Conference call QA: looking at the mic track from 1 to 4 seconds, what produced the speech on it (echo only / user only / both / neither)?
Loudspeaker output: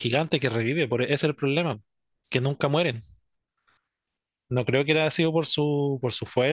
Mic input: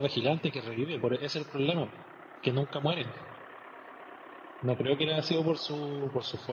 echo only